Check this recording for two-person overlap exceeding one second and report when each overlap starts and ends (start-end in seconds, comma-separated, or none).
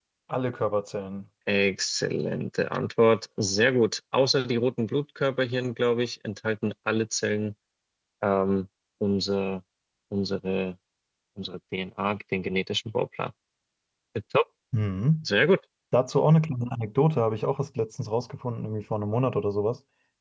none